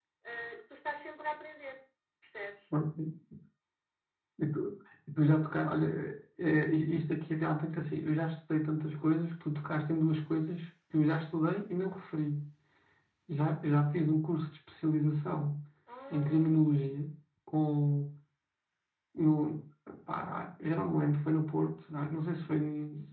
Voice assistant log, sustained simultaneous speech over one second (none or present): none